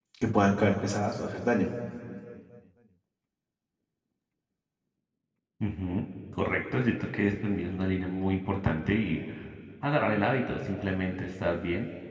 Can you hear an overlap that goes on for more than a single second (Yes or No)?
No